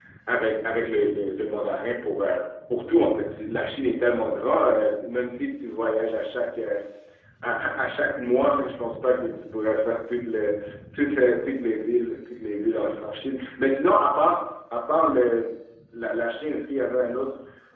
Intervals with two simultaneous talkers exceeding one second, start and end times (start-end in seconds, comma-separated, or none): none